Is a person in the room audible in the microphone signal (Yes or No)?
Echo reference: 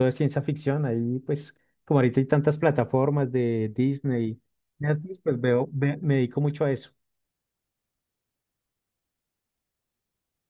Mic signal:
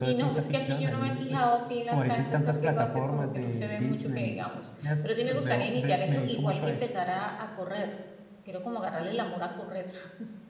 Yes